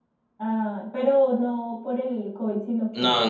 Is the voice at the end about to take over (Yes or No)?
Yes